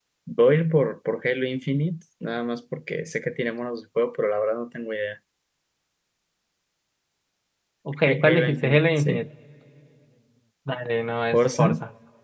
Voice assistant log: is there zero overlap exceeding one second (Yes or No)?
No